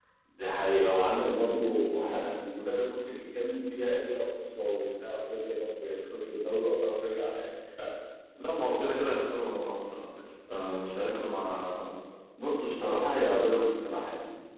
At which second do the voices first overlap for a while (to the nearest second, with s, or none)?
none